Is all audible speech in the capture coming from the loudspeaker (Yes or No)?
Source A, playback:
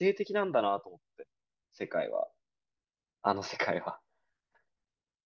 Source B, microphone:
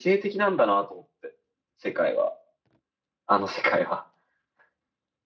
Yes